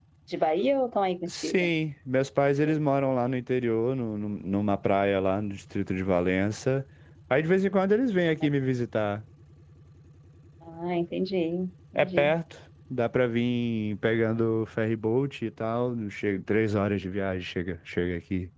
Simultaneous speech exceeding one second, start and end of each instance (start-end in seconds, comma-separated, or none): none